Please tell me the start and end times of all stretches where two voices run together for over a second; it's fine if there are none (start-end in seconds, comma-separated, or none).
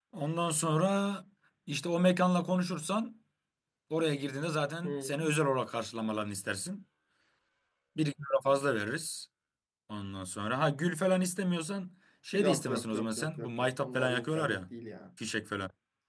12.4-14.6